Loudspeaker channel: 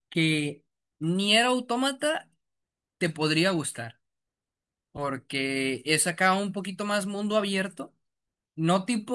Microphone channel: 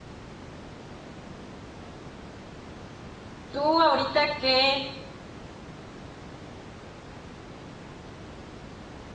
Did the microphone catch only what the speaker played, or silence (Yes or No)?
No